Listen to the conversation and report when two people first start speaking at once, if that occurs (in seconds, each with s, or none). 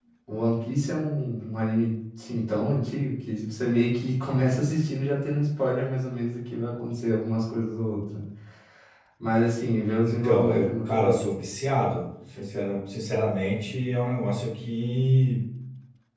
10.0 s